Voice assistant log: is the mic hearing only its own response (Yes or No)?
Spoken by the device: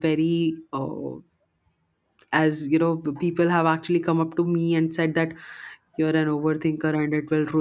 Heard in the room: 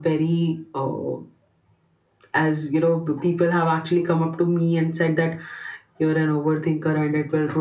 Yes